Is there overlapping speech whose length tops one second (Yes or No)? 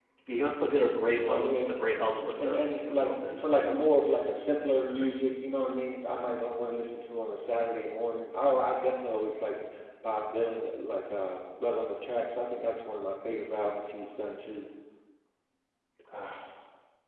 Yes